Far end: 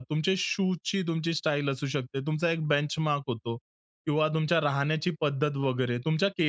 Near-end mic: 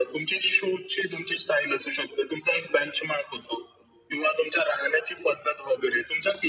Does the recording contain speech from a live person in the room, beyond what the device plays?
No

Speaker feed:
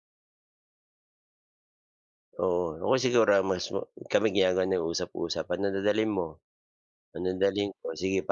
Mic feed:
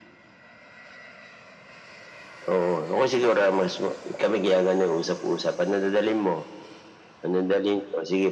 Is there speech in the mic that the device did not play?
No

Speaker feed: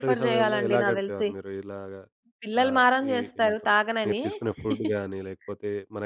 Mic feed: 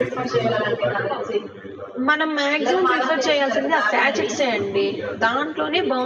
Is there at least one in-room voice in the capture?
Yes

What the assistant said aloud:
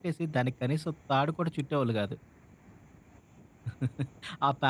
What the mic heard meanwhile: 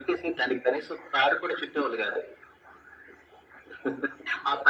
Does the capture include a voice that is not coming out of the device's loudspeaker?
No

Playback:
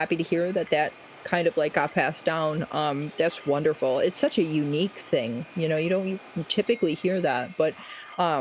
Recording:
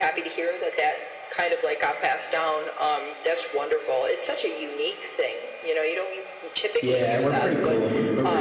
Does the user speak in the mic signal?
Yes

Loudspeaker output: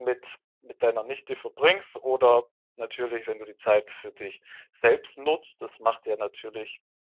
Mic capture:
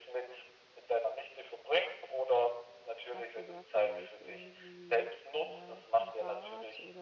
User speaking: Yes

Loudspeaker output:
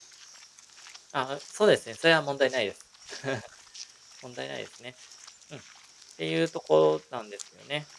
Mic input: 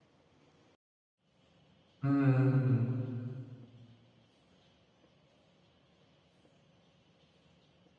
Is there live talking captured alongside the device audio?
Yes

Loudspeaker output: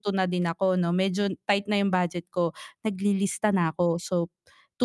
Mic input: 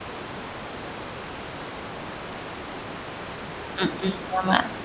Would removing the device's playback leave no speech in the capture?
No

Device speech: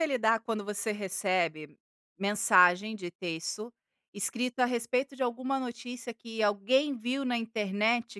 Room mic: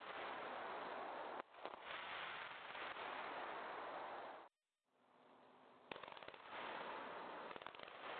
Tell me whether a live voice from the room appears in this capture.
No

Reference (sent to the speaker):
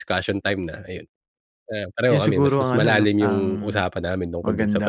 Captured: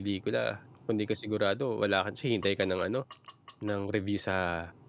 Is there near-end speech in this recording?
Yes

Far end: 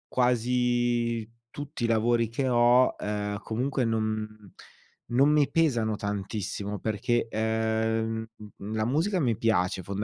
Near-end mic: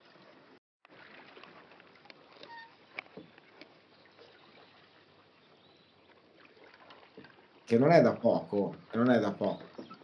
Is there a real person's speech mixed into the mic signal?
Yes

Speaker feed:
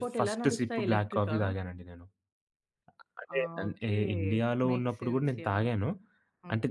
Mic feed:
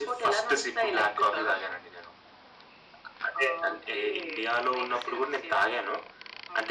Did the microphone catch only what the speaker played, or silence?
Yes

